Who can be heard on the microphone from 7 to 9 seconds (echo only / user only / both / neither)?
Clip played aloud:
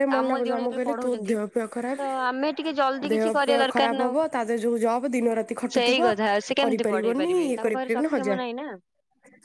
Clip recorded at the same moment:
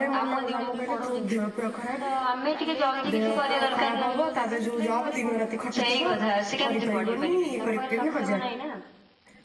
echo only